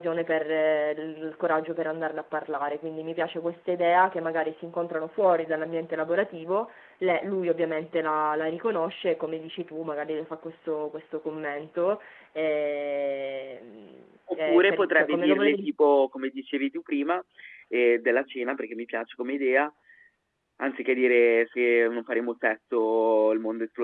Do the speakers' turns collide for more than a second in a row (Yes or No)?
Yes